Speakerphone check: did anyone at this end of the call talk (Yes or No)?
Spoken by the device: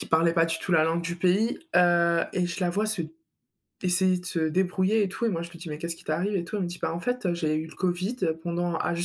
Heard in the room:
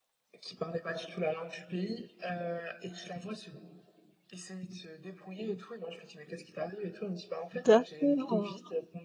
Yes